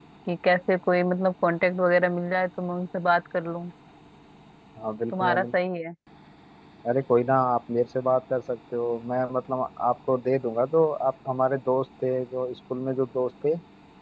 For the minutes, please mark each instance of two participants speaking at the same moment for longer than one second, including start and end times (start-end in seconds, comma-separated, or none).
none